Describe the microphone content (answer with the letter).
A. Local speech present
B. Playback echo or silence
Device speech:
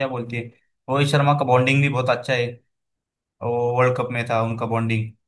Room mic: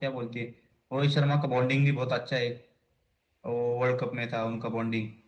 B